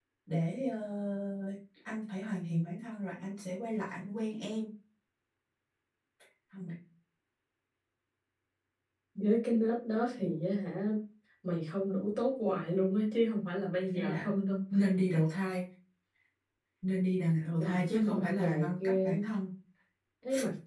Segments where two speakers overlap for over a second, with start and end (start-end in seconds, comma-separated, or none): 17.6-19.2